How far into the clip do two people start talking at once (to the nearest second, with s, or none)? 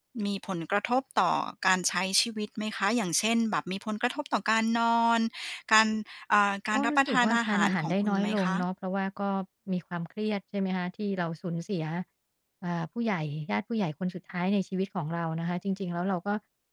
7 s